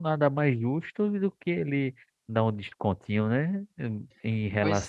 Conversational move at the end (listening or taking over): listening